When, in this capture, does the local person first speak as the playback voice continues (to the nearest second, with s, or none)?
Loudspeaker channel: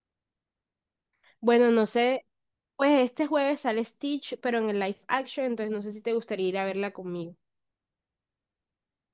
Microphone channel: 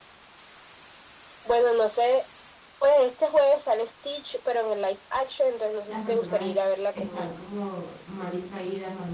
6 s